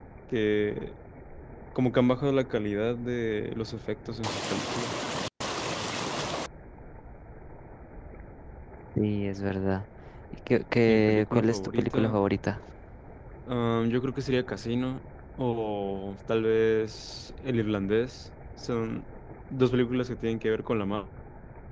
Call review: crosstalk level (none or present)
present